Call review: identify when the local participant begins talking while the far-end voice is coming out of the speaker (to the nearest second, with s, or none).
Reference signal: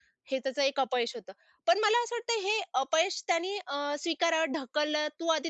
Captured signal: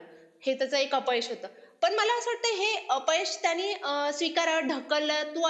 none